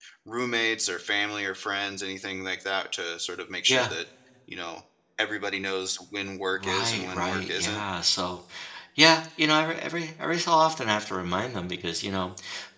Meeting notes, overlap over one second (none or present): present